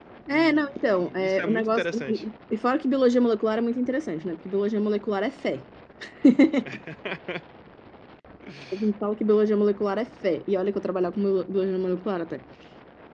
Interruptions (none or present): present